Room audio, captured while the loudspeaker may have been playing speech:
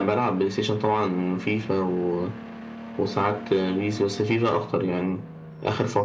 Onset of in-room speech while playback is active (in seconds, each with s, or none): none